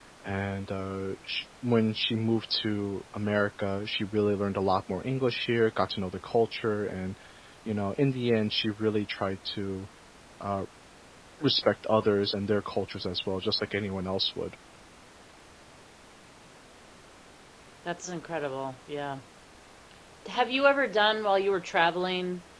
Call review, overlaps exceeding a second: none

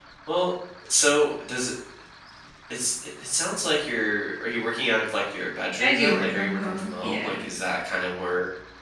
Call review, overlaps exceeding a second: present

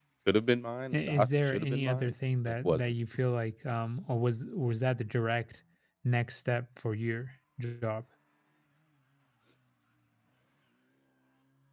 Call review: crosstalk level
present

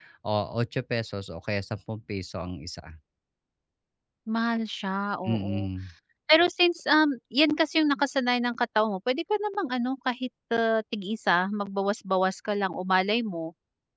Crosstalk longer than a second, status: none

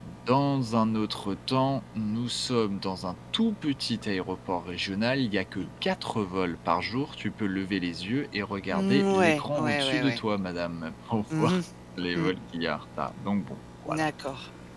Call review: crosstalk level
present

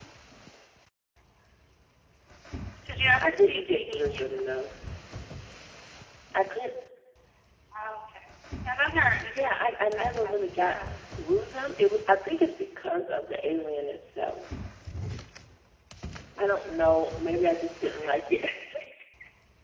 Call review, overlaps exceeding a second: present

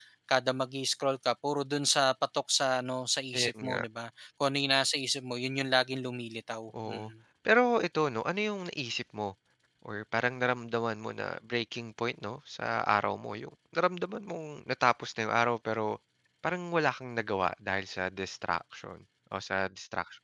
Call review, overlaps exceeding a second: none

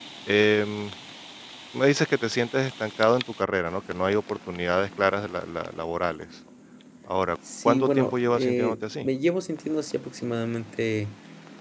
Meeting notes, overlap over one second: present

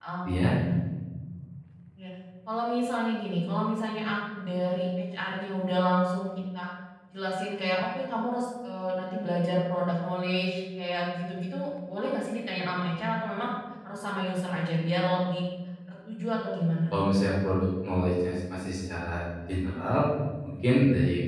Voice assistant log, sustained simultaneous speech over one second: none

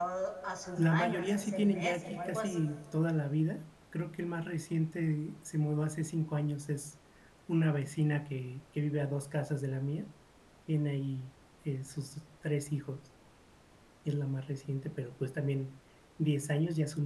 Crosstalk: present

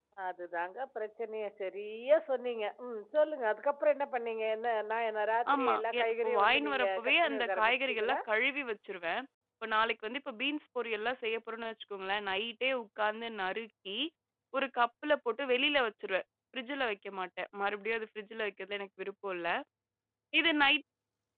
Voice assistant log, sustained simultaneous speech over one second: present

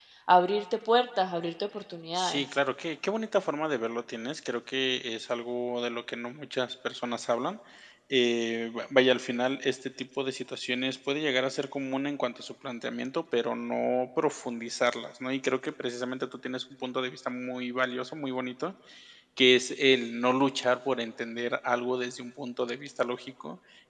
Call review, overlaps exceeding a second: none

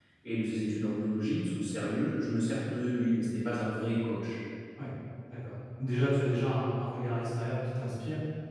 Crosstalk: none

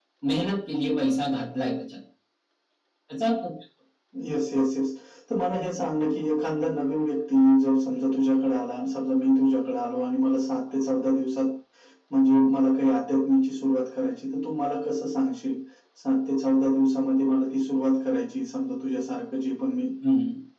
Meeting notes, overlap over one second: none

